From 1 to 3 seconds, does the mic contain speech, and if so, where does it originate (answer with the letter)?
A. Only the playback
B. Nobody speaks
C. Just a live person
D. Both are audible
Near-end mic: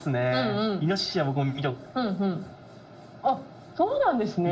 A